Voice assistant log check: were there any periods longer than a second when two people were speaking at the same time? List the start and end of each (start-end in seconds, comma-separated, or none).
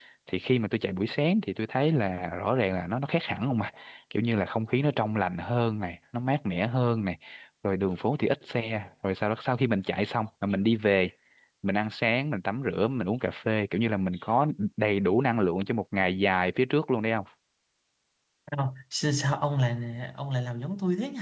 none